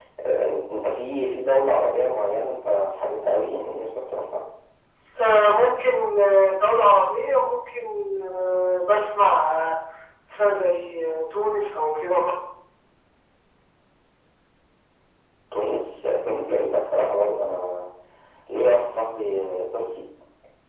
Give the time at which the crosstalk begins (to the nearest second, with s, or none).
none